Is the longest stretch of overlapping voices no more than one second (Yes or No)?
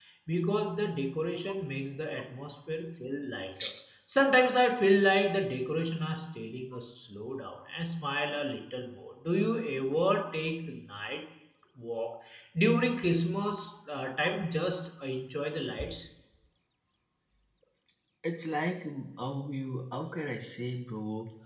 Yes